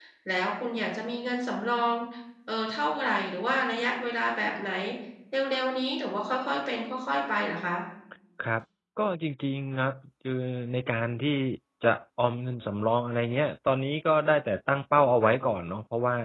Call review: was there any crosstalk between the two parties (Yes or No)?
No